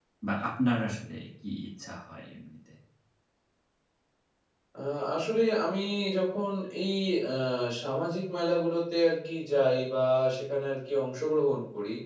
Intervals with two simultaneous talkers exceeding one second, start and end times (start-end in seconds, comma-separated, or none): none